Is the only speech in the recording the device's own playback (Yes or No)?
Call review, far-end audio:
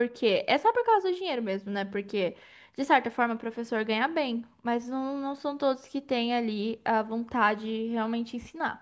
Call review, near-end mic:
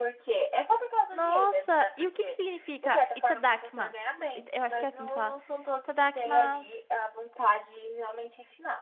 No